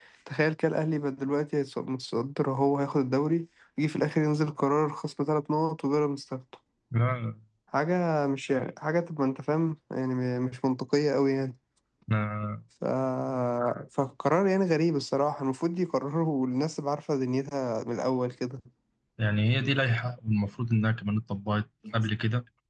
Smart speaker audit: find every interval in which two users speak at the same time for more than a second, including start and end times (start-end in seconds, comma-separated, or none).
none